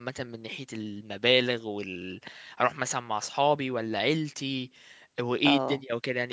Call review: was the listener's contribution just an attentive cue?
No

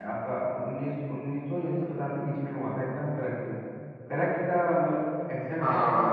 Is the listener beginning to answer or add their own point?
Yes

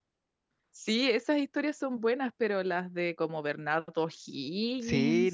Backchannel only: No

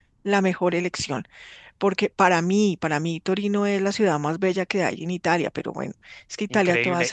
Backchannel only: No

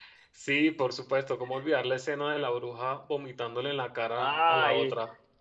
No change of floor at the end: No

